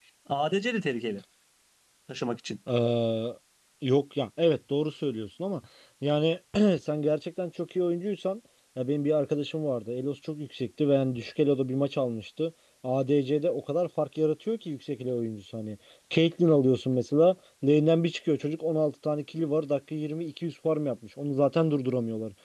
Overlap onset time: none

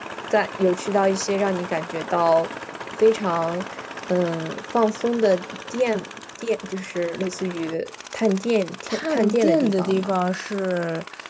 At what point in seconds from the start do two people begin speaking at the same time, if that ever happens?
8.9 s

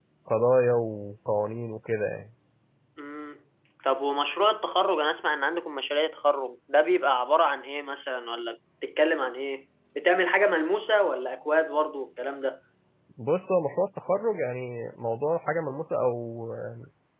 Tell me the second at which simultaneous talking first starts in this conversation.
none

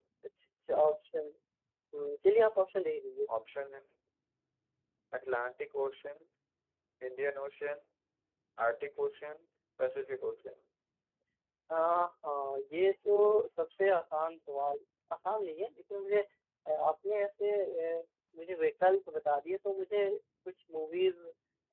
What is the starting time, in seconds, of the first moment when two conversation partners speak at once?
none

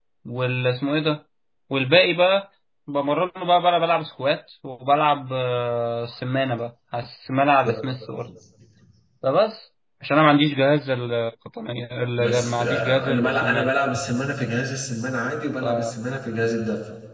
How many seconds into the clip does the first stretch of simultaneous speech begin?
12.2 s

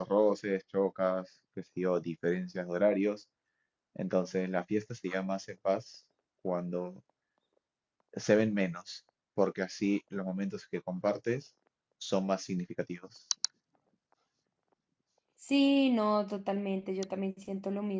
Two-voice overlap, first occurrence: none

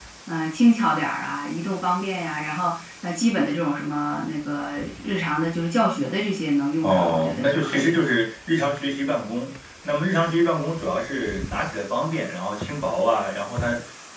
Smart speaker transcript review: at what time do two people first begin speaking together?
6.8 s

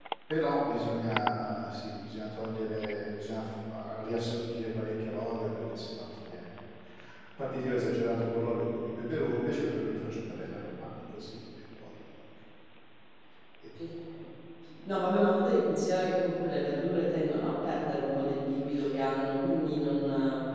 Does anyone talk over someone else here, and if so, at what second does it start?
none

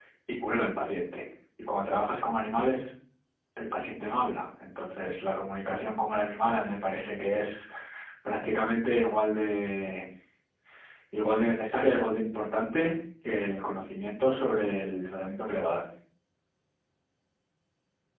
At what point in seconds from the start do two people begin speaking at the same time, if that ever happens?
none

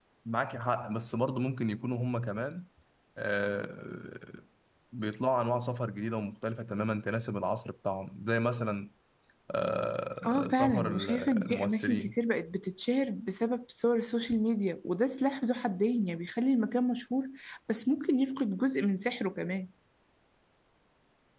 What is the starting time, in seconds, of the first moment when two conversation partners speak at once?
10.2 s

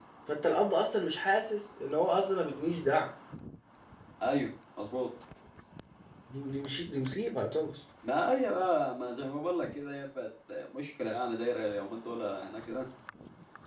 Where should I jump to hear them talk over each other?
none

